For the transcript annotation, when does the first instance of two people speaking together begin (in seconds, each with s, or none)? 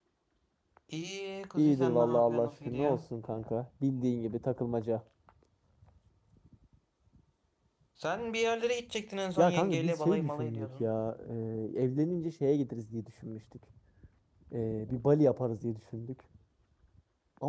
1.6 s